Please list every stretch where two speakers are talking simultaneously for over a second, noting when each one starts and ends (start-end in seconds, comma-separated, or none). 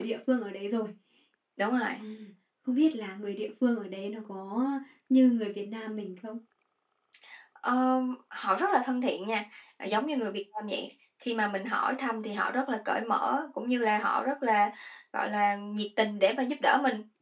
none